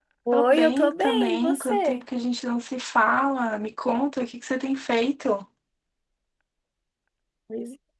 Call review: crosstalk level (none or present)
present